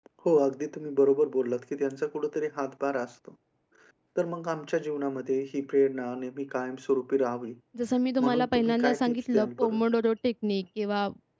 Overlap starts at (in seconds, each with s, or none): 8.2 s